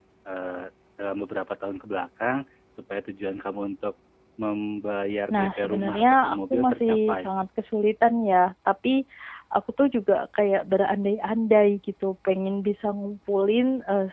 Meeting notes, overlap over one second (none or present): present